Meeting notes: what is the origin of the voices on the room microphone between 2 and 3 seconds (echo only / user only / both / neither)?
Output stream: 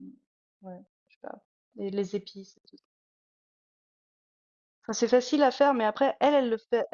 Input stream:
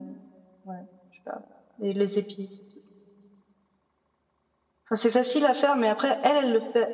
echo only